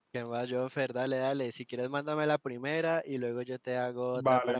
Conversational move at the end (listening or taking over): taking over